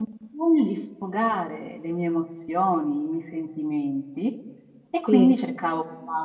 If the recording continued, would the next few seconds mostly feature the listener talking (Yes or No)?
No